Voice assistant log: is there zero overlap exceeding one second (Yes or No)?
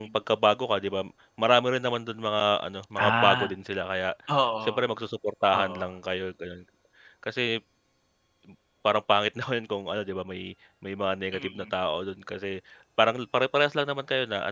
Yes